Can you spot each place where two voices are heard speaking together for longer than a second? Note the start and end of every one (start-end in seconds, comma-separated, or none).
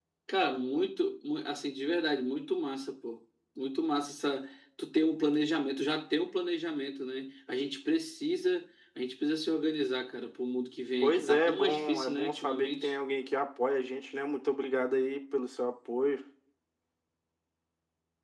11.0-12.9